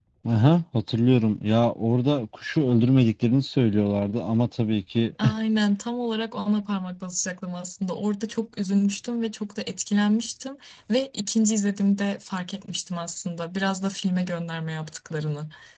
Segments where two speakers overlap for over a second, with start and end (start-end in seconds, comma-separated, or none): none